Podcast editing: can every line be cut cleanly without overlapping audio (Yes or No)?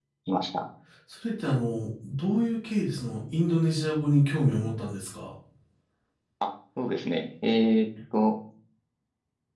Yes